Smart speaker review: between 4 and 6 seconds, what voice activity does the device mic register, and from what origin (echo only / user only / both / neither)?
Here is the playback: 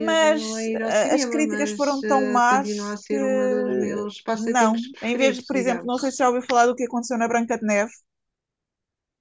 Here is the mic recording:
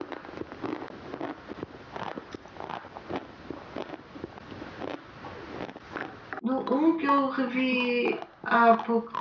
neither